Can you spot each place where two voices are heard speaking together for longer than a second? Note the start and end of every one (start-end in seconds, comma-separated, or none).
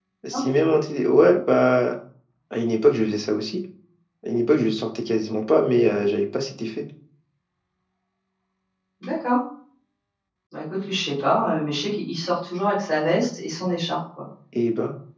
none